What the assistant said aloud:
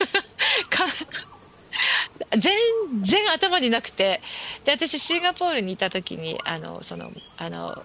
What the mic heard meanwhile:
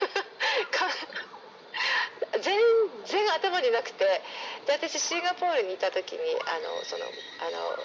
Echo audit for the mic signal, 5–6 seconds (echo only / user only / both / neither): echo only